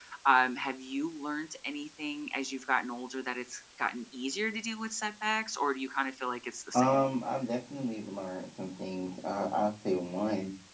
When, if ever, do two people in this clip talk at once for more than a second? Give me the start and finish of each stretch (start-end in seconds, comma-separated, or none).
none